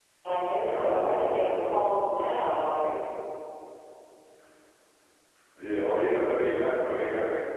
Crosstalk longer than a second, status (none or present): present